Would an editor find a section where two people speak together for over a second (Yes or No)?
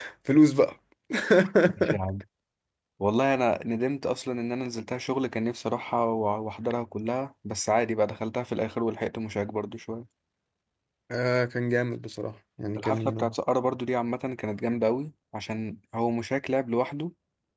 No